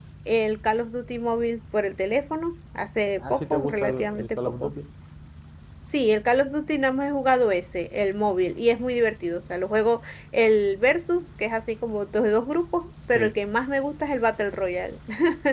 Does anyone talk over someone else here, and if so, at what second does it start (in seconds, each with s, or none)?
3.2 s